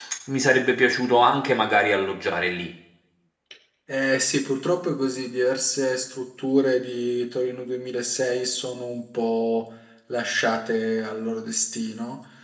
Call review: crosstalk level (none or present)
none